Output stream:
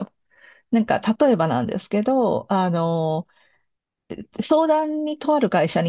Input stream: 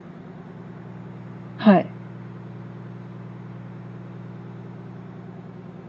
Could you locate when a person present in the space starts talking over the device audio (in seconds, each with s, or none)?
1.6 s